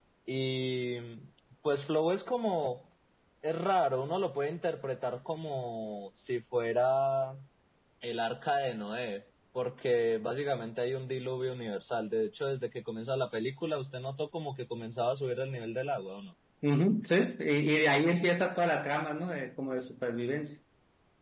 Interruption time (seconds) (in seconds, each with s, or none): none